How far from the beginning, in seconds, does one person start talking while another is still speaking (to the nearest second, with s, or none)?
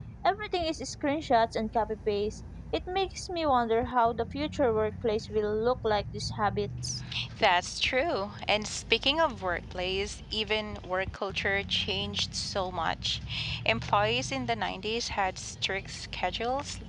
none